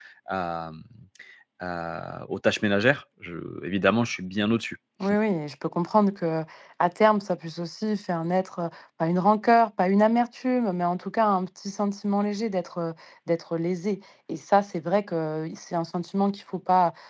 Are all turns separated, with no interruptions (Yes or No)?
Yes